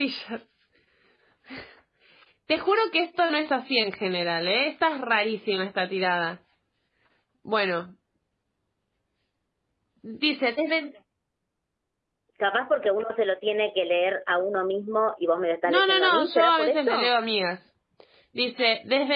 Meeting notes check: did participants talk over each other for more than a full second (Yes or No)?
Yes